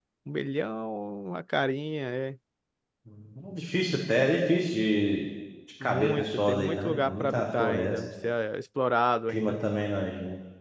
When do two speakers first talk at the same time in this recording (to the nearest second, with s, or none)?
6 s